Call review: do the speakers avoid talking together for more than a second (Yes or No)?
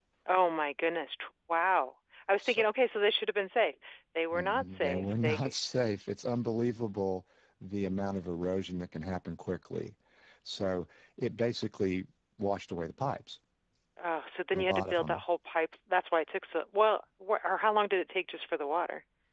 No